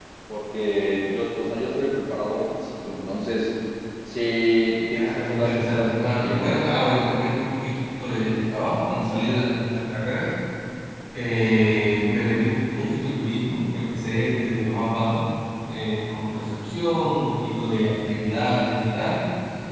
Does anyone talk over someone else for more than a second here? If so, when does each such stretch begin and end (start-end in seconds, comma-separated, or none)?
4.9-6.5